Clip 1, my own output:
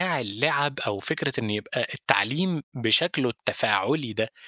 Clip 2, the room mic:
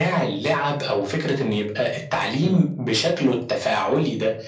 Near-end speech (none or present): present